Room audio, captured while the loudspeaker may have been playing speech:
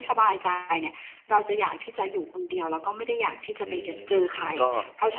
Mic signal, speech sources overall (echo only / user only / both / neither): both